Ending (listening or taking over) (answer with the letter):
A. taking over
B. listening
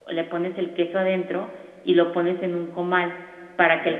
B